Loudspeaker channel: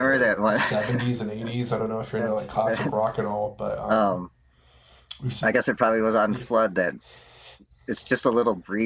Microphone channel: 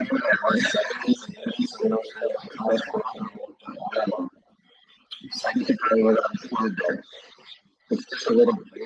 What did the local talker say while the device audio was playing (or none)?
none